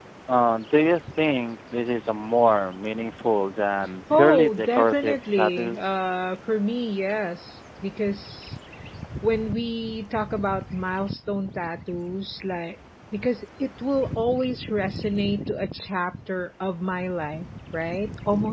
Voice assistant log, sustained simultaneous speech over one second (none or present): present